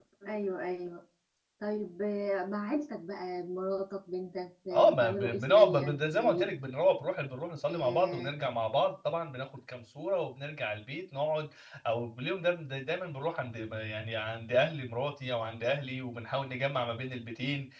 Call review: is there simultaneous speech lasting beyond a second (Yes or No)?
Yes